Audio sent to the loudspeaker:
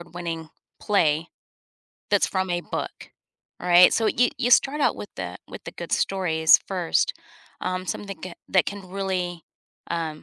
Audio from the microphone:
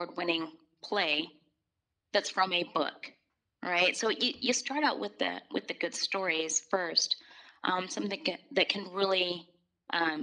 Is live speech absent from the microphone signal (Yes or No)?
Yes